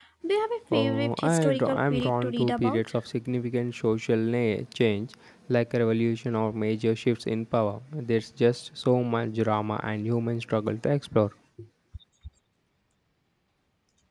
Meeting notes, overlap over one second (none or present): present